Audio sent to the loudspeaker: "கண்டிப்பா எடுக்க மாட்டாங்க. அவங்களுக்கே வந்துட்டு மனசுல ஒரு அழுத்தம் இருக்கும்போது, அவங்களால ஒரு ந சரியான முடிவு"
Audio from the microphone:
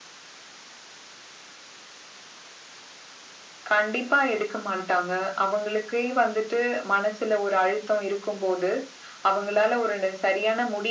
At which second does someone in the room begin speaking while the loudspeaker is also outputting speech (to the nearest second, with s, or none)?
none